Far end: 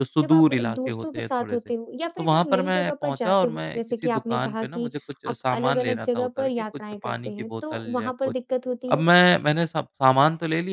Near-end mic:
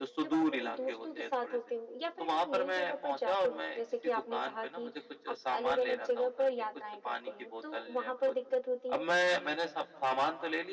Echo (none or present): present